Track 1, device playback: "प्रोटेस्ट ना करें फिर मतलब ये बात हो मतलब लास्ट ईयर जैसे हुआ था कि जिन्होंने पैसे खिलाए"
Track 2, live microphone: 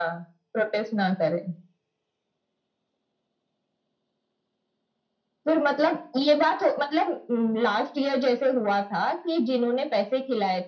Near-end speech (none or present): none